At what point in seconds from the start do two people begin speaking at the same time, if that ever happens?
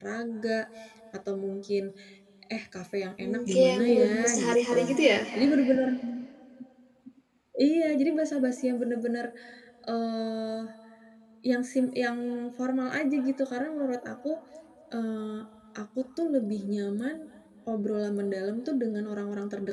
3.2 s

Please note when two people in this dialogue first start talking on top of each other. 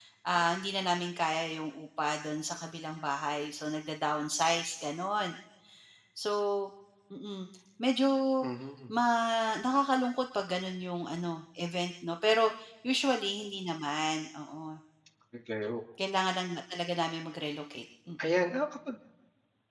none

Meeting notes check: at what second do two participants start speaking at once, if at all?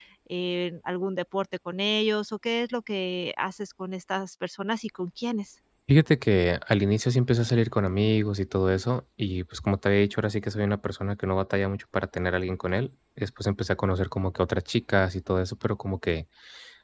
none

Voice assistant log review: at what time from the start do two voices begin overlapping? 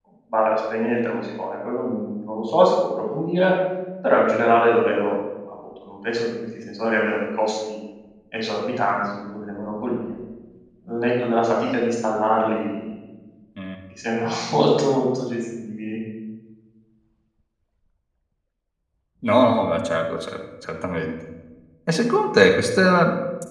none

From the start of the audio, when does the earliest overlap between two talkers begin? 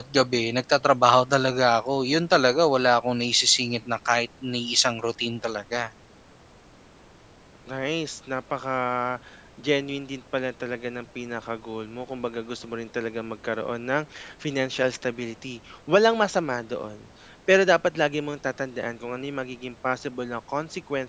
none

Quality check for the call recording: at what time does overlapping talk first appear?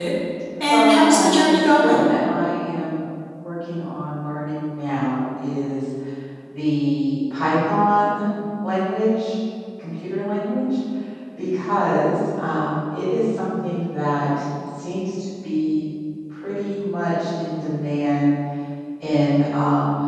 0.6 s

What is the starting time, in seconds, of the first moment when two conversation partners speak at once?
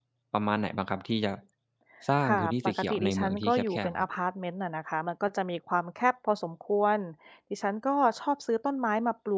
2.3 s

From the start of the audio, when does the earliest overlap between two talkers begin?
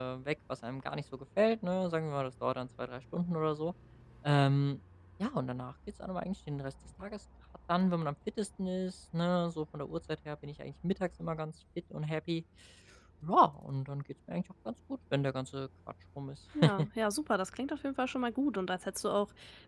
none

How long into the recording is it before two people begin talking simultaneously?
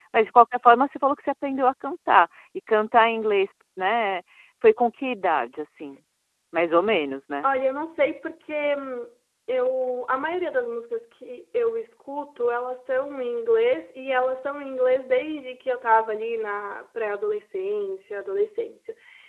none

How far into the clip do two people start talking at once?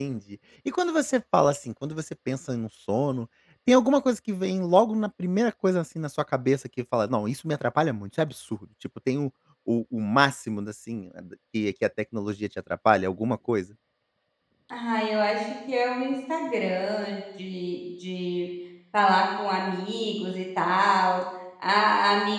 none

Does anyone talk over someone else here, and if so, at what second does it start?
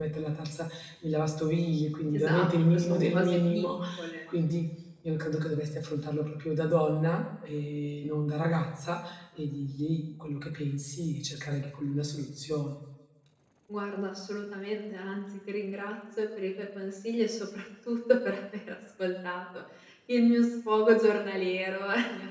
2.1 s

